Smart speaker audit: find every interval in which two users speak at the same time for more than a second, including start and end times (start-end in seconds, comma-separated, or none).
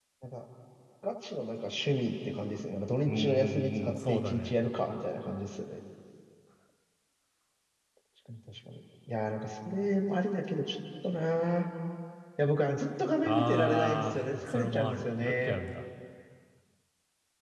3.0-4.5, 13.2-15.6